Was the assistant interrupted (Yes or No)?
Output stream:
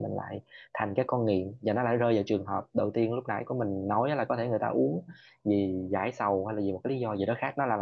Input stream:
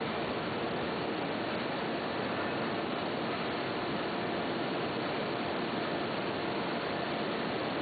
No